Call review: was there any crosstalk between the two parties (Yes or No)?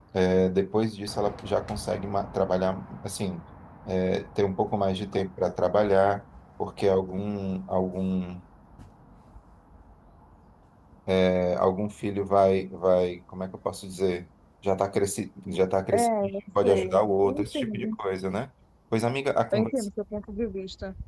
Yes